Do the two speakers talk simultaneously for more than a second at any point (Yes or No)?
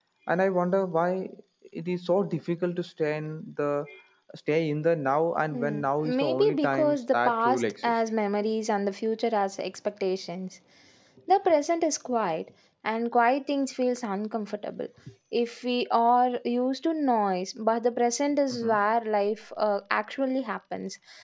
Yes